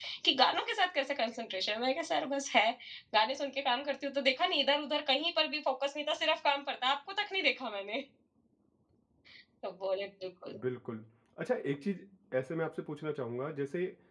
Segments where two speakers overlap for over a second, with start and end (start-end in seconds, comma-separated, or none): none